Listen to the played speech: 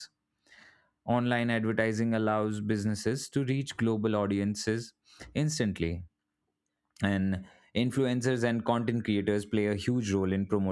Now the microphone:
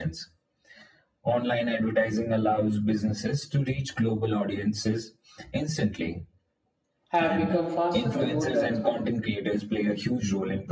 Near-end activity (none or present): present